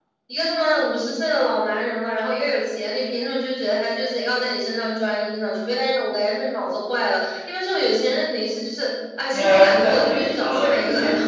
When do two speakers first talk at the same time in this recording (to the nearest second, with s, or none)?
9 s